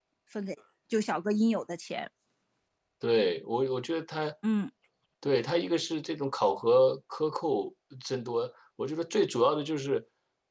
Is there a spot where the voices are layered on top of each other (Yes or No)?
No